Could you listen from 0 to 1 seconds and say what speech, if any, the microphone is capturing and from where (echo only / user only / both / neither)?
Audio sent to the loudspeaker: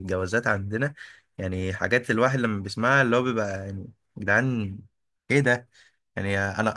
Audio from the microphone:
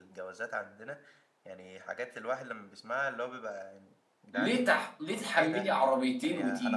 echo only